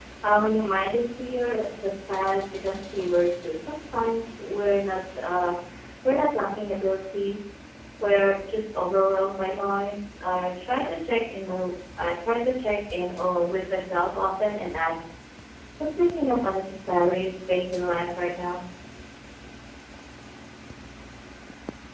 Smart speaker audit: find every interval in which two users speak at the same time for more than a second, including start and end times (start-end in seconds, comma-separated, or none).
none